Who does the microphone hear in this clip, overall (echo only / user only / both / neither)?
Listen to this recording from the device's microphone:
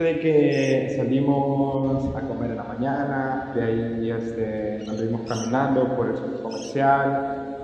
user only